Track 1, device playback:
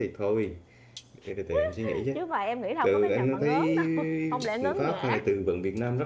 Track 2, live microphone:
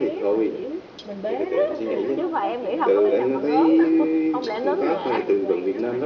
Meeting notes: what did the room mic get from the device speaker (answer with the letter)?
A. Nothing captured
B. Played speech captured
B